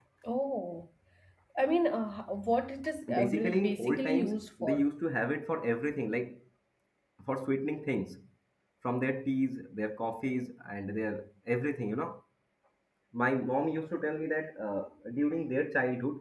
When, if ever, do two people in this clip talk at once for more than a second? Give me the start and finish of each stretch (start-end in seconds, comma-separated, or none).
3.1-4.9